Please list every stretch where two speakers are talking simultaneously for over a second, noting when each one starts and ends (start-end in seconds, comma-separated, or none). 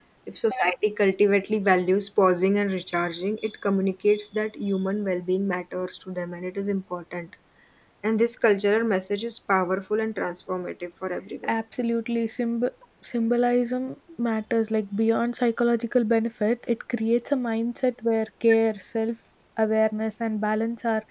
none